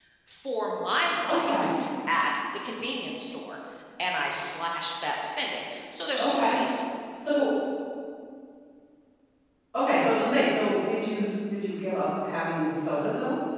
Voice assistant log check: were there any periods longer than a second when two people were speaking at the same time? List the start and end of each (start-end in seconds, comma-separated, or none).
none